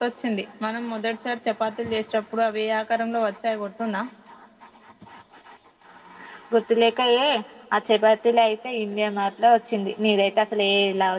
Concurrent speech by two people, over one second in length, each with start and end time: none

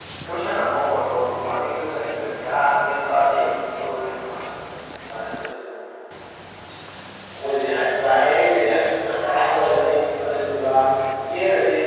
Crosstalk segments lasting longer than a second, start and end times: none

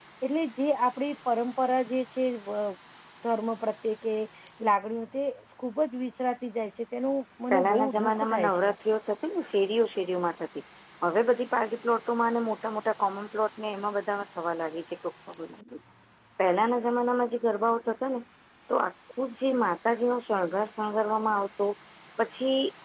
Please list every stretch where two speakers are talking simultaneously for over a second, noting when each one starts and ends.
7.5-8.7

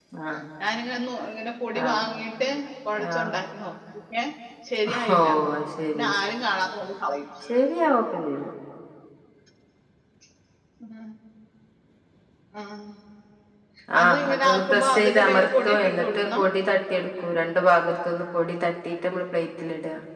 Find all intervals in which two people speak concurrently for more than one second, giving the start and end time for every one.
14.0-16.4

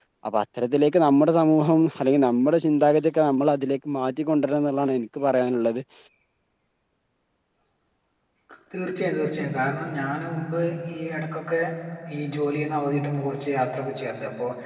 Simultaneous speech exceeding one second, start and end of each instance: none

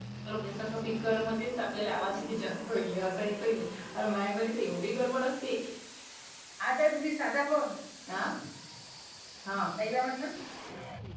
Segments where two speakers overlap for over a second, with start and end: none

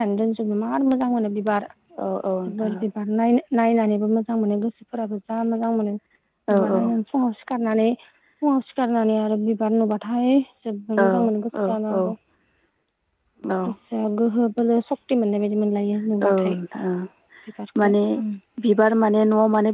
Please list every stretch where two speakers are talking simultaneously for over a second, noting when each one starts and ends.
none

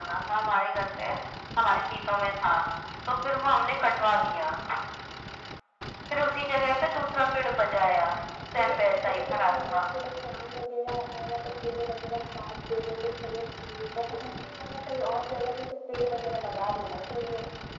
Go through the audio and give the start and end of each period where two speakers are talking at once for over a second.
8.6-9.8

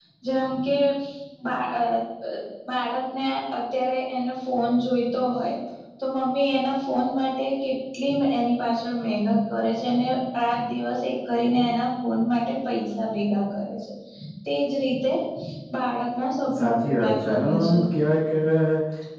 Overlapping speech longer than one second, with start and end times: 16.6-17.8

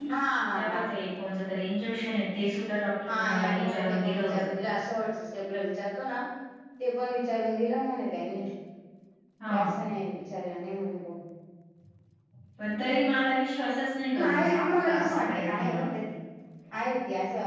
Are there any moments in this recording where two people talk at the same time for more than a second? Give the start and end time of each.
3.1-4.5, 14.2-15.8

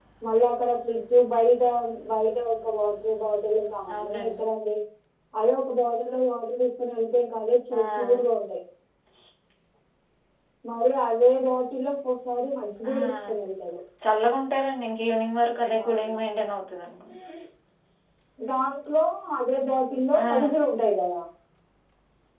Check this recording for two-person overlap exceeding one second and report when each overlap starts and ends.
none

